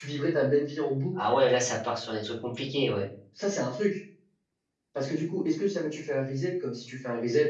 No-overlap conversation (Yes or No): Yes